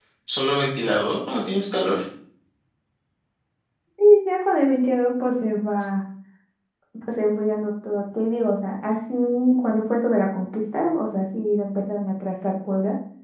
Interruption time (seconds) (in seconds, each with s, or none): none